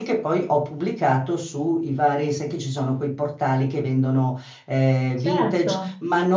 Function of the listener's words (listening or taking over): listening